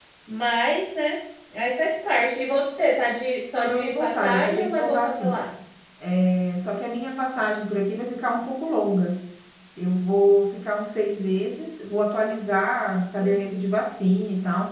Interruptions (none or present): present